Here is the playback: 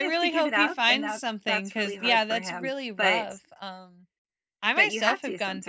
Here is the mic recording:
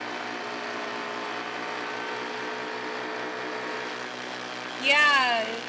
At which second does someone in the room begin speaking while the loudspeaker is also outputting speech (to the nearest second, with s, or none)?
5 s